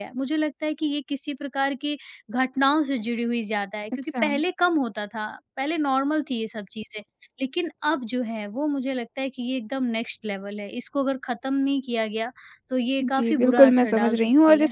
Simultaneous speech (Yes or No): Yes